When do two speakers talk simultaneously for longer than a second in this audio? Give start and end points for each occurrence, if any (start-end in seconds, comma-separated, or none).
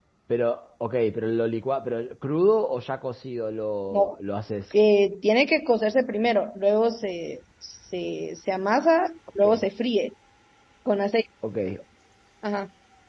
none